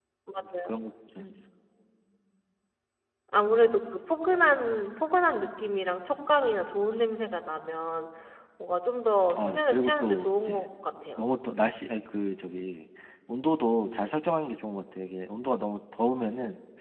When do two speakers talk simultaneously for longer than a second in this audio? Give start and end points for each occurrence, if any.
9.4-10.6

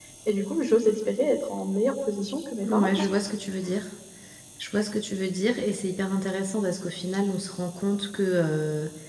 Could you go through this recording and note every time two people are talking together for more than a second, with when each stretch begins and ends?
none

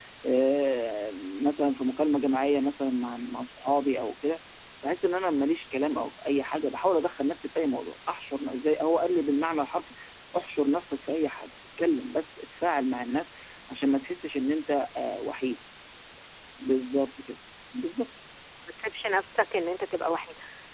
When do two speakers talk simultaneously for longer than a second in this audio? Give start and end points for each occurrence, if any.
none

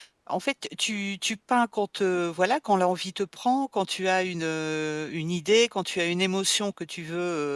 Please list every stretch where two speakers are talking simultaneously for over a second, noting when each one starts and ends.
none

